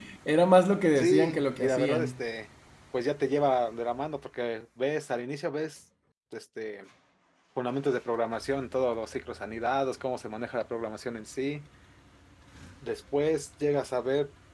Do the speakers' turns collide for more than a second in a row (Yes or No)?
Yes